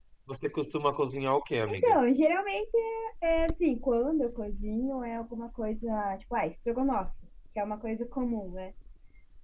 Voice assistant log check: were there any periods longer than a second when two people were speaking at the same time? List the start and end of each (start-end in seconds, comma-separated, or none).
none